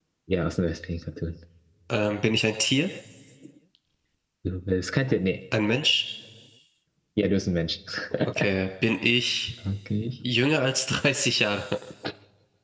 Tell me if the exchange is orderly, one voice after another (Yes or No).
Yes